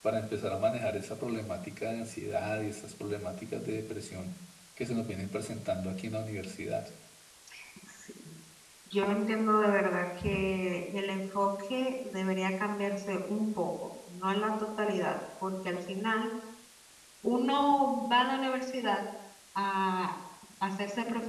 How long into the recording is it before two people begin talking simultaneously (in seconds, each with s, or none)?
none